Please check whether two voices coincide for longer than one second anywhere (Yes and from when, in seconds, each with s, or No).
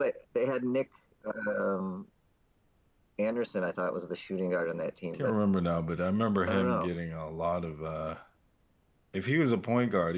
No